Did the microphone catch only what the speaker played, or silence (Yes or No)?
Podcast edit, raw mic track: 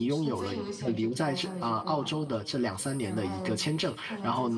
No